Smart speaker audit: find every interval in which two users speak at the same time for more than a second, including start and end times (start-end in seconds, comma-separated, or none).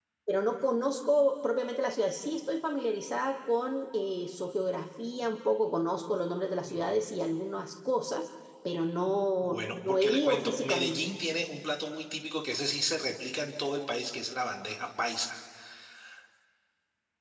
9.4-11.0